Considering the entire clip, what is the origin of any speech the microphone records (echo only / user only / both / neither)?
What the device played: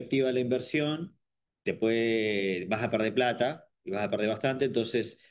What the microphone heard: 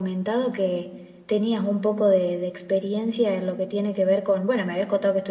user only